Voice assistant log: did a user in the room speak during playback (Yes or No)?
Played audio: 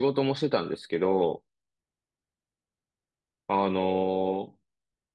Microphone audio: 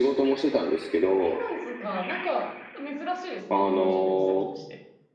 Yes